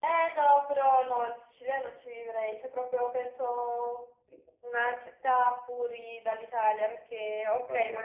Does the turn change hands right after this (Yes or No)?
No